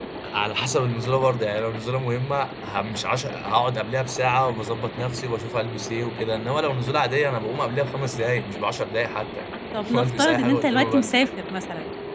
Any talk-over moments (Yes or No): Yes